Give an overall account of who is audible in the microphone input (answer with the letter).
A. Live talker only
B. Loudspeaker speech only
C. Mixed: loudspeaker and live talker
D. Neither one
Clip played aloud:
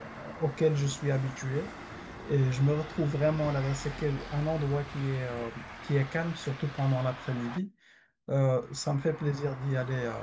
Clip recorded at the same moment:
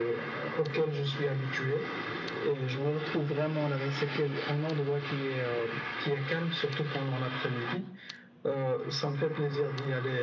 B